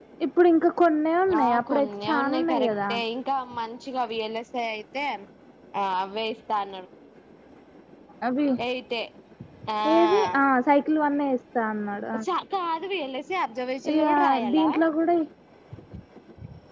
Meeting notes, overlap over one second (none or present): present